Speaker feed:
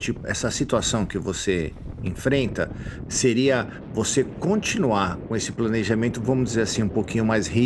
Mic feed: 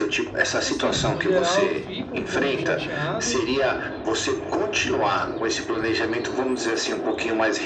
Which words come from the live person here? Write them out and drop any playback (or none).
Assim, no geral, eu fico um pouco chateado,